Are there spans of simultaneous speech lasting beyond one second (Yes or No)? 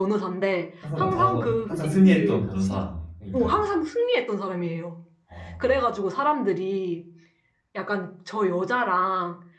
Yes